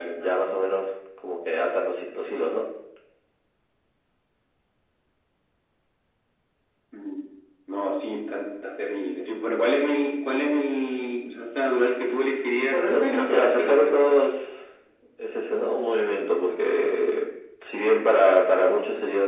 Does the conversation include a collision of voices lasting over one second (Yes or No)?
Yes